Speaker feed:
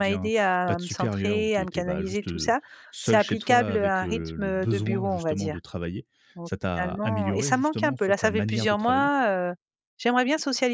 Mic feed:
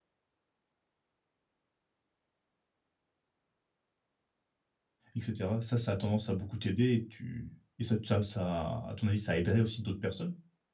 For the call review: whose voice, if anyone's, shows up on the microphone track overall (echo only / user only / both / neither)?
user only